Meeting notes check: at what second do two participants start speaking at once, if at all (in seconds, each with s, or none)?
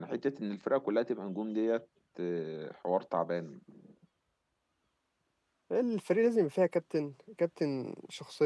none